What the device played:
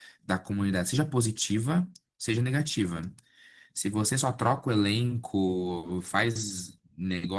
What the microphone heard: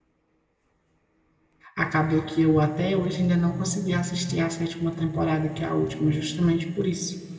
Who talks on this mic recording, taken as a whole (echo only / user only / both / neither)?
user only